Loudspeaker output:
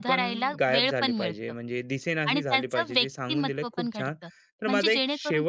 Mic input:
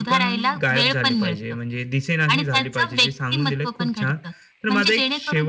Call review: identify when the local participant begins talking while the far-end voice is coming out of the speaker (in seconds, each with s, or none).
none